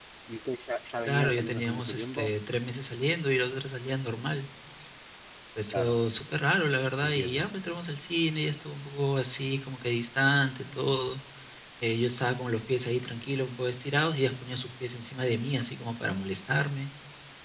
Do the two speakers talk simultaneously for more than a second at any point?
Yes, from 1.1 s

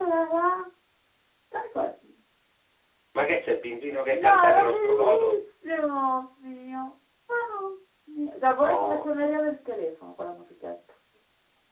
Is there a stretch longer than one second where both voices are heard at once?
Yes, from 4.1 s

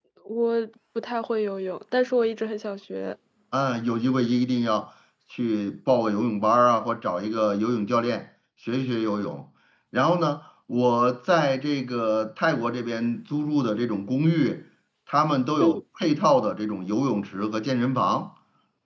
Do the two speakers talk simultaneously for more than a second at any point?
No

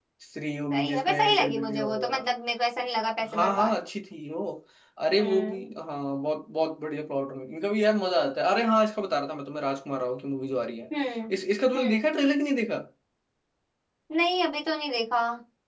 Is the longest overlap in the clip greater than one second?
Yes, from 0.7 s

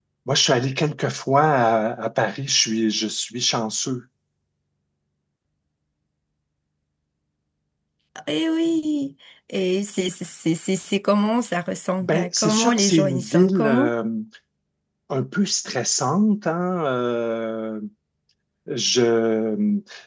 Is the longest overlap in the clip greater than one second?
Yes, from 12.0 s

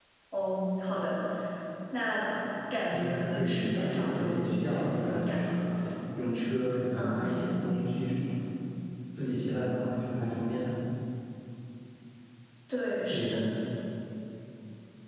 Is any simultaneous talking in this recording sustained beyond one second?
Yes, from 2.9 s

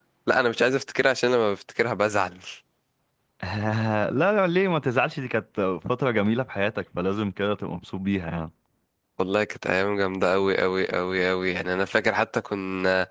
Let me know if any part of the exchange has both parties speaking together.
No

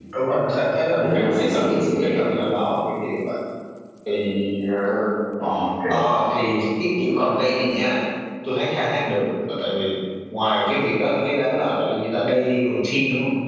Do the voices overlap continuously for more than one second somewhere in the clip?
Yes, from 1.0 s

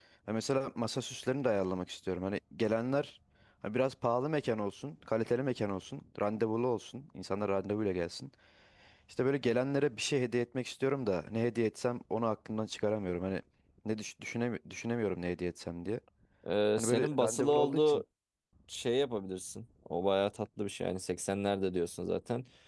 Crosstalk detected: Yes, from 16.8 s

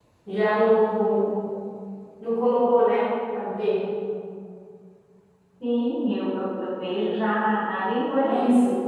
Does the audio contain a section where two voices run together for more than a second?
No

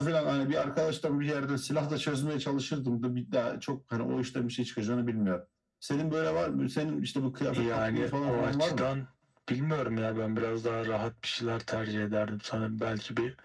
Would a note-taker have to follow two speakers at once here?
Yes, from 7.5 s

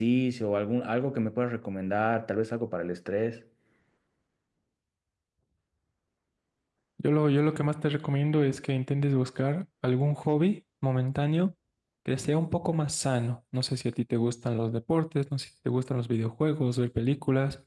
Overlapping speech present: No

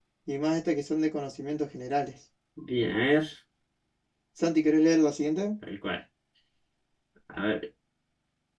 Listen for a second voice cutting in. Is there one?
No

